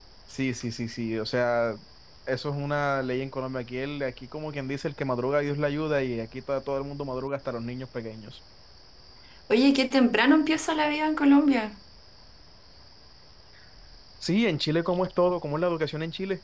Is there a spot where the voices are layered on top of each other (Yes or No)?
No